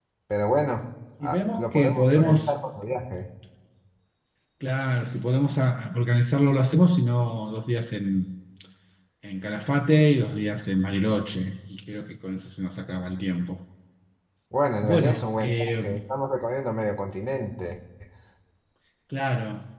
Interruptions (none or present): present